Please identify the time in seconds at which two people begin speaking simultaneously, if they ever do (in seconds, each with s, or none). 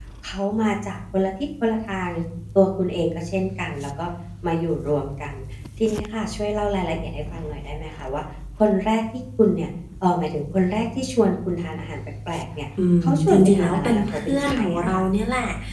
12.8 s